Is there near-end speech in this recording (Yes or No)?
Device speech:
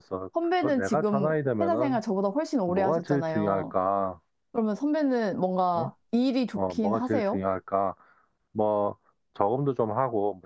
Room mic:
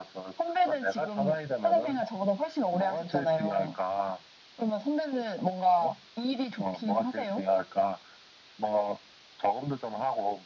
No